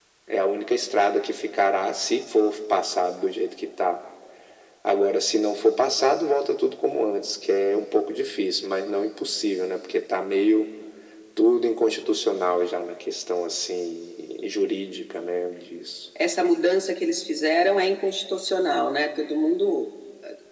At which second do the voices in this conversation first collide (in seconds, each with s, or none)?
none